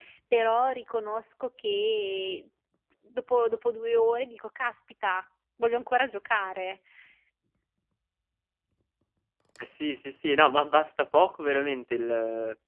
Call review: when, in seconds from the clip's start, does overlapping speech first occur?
none

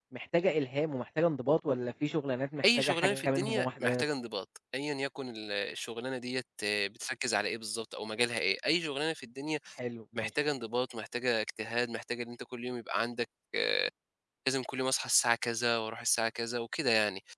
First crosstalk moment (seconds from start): 2.6 s

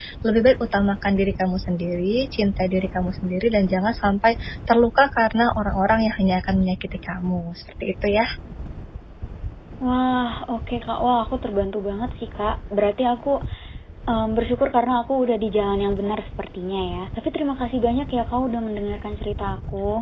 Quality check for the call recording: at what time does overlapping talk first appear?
none

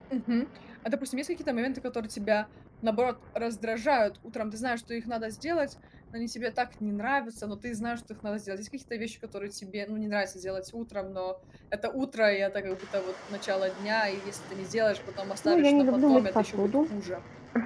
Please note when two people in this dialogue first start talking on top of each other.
15.4 s

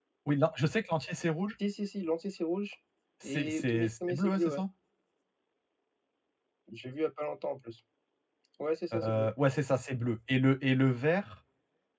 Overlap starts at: 3.2 s

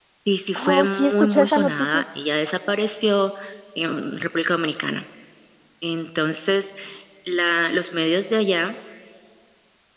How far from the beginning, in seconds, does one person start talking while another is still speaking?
0.6 s

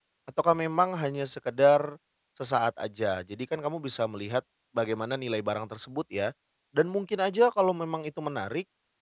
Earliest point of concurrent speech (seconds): none

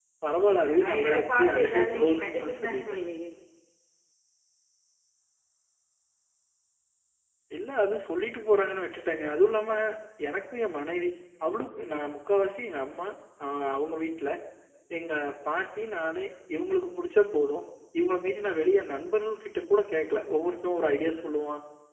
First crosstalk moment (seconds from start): 0.8 s

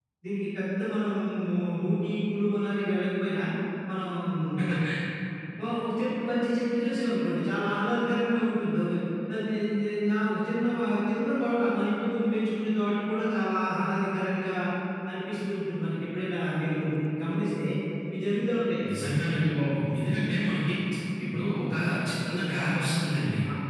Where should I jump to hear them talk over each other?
none

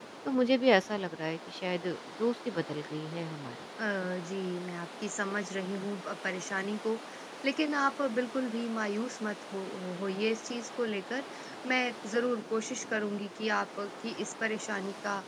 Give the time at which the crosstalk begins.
none

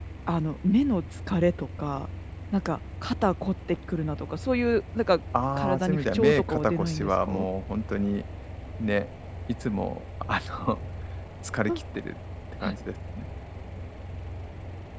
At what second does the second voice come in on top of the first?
5.3 s

